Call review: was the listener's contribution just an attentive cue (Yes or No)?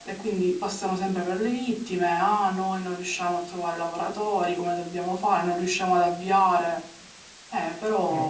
No